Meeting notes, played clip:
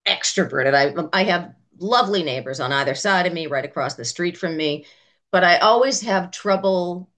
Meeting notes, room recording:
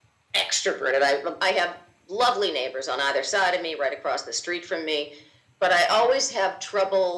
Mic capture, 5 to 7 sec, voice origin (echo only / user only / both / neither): echo only